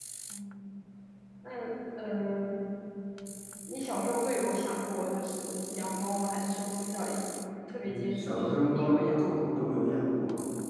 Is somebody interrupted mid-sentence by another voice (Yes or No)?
Yes